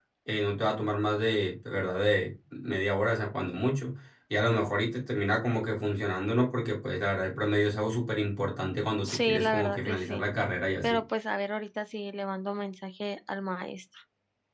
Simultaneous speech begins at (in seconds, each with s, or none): 9.0 s